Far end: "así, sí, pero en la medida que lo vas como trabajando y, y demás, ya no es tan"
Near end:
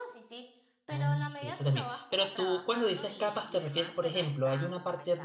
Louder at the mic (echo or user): user